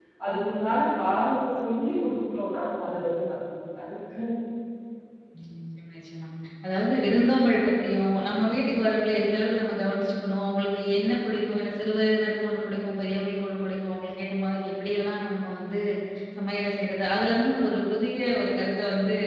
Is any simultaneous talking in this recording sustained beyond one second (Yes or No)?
No